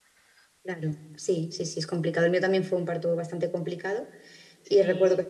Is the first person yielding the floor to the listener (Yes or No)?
No